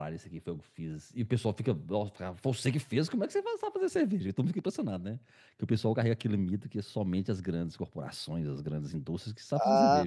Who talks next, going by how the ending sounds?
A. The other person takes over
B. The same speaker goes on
A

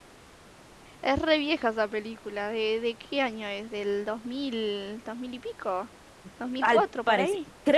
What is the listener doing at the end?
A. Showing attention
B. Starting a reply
B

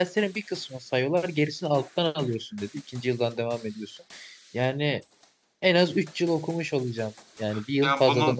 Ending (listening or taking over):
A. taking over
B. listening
A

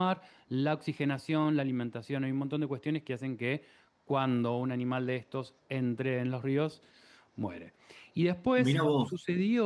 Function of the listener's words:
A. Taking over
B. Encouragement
B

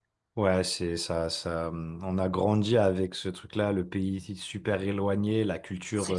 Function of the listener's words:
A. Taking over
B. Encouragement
B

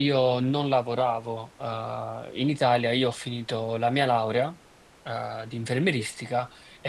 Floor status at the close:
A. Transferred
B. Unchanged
B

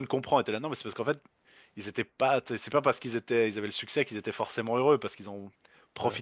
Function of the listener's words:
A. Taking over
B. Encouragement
B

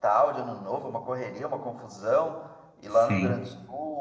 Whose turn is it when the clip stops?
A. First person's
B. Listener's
A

